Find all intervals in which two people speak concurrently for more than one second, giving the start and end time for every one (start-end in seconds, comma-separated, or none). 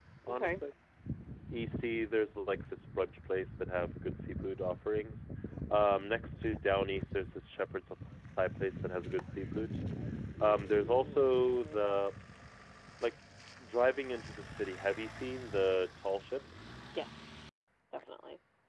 10.4-11.9